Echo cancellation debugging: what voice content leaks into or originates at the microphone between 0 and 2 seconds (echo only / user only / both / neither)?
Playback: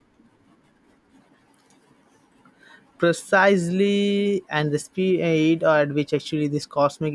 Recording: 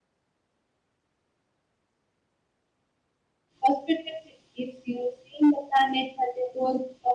neither